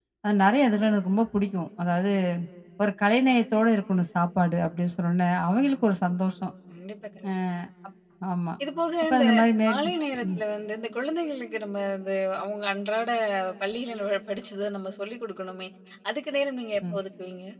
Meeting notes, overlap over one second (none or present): none